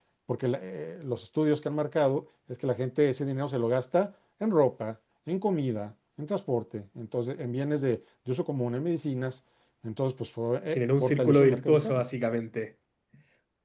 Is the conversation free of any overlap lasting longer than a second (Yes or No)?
No